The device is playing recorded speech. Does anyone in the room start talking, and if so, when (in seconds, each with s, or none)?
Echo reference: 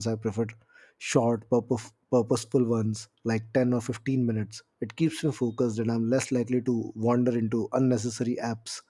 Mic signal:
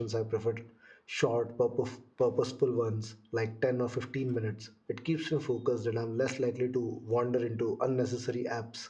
none